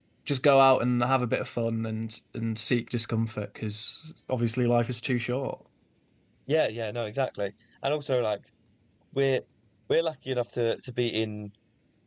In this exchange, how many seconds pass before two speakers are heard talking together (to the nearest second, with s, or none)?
none